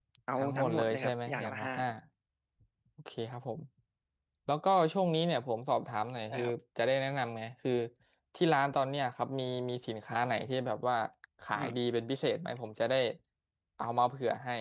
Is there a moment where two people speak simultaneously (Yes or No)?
Yes